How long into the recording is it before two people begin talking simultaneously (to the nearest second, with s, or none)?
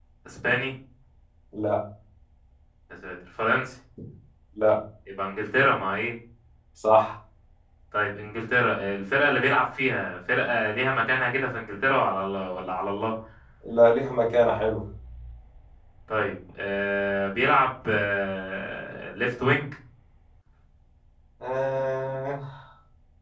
none